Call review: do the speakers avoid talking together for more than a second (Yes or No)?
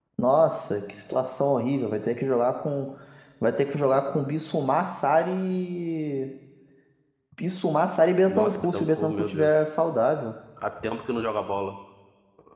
No